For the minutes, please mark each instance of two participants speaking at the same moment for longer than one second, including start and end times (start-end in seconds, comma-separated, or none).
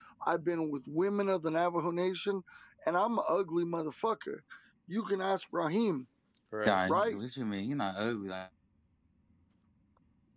none